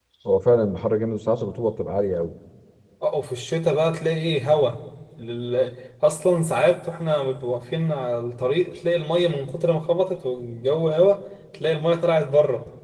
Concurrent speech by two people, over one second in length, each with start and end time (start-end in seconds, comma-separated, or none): none